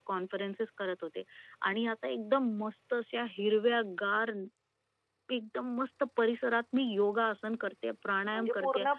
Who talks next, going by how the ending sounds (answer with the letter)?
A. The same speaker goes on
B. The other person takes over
B